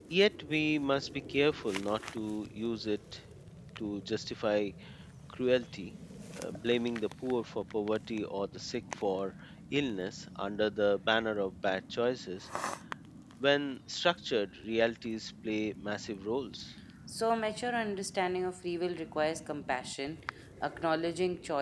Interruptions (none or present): none